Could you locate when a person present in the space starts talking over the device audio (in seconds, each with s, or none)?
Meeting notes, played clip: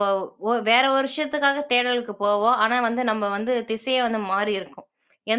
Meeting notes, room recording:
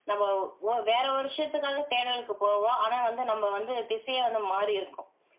none